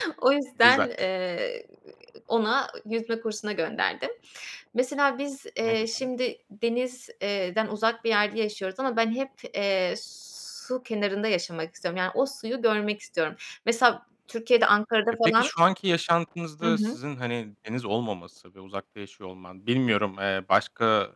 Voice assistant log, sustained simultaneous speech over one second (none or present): none